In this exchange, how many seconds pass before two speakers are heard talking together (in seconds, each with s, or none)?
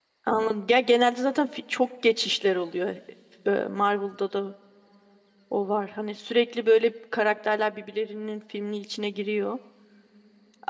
none